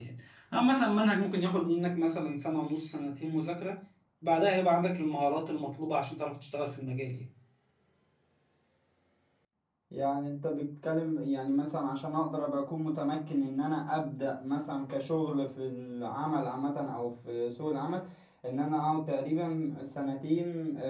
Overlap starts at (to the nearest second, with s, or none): none